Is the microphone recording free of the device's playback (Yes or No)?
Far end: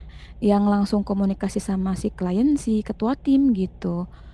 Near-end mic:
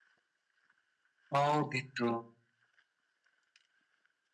Yes